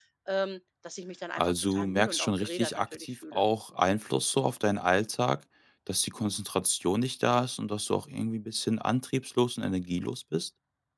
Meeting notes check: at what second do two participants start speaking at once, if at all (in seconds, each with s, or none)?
1.4 s